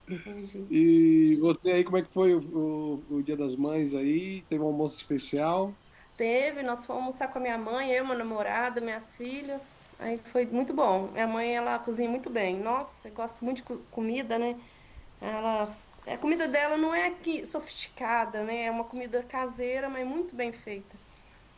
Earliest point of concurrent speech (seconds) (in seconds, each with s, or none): none